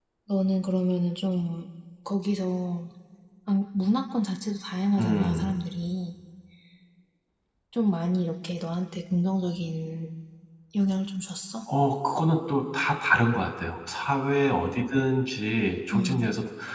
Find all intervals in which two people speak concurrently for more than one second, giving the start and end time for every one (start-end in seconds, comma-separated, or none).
none